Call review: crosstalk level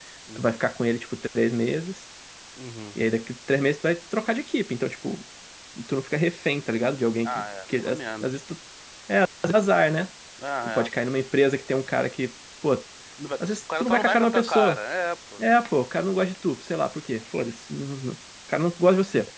present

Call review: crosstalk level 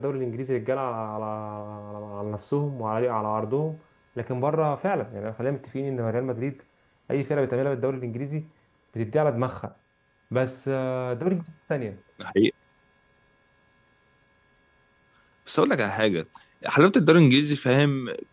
none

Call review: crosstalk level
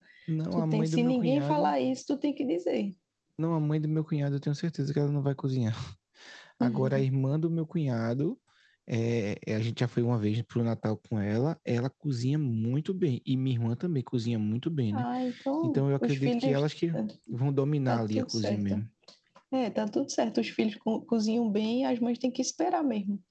present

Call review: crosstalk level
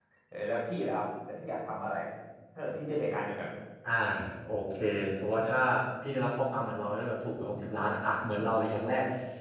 none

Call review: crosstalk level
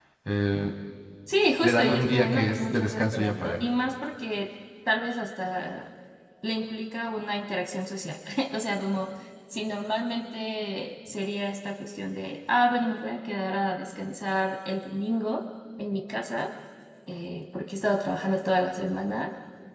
present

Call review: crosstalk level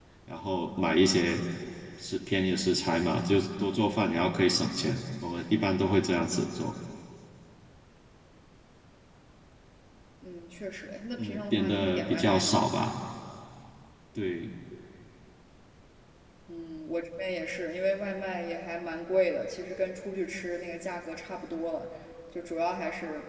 present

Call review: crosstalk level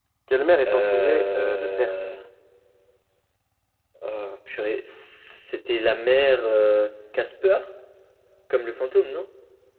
present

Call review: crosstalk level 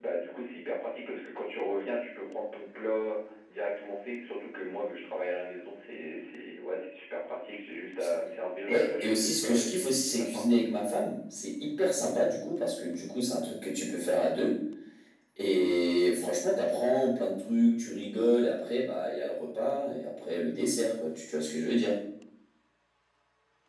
present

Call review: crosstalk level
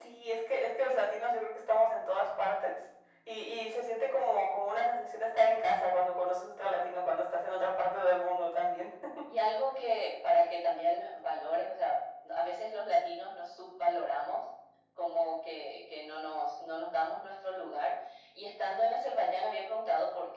none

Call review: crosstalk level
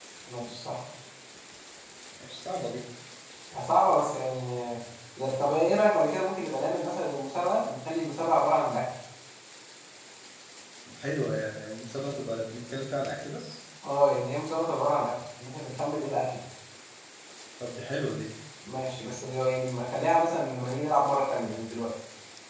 none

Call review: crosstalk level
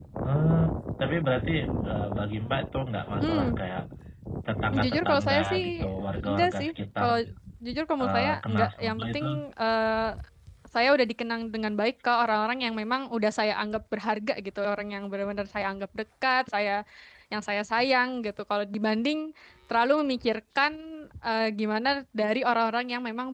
present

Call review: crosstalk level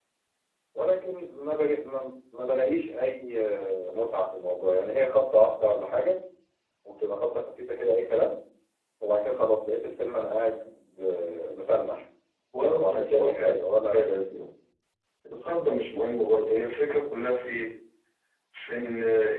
present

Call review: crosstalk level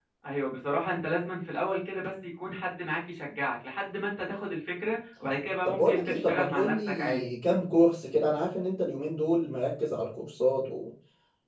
present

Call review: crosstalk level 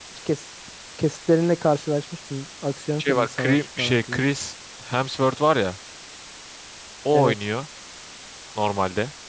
present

